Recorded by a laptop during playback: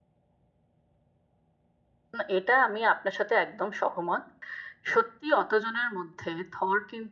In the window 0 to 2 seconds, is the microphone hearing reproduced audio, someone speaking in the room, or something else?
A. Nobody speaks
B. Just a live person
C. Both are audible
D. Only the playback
A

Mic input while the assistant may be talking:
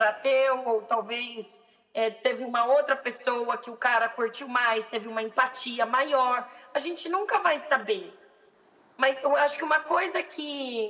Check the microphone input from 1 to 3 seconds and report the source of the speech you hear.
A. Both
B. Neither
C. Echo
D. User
C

